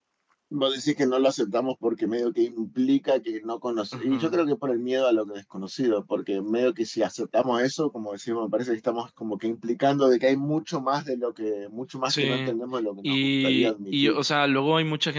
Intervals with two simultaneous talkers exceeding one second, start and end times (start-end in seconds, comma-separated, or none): 13.0-14.2